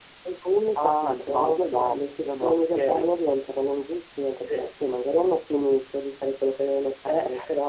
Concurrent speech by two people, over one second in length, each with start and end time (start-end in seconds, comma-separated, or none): 0.8-3.0